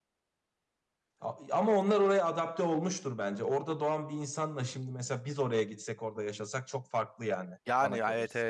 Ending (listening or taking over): taking over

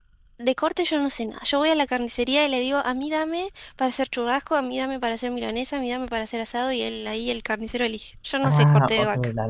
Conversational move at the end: taking over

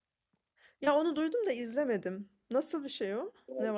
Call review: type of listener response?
taking over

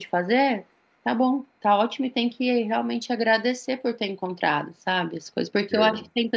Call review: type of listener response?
listening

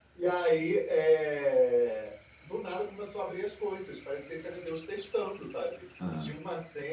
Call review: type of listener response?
listening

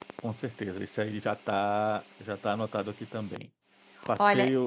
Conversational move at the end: listening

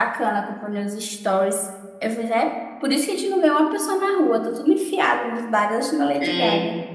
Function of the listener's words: taking over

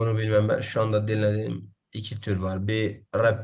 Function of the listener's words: listening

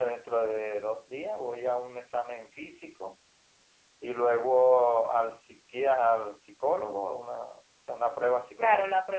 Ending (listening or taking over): taking over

